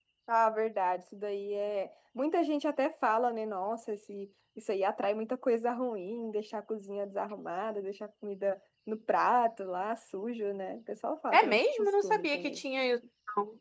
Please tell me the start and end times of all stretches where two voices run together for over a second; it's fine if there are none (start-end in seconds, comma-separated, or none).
11.3-12.6